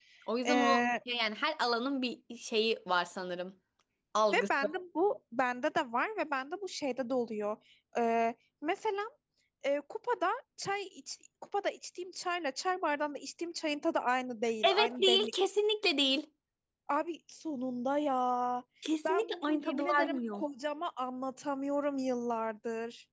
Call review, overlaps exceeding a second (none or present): present